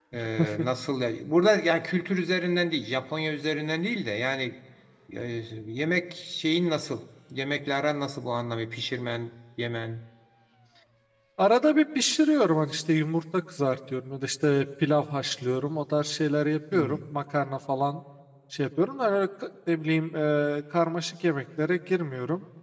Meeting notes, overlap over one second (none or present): none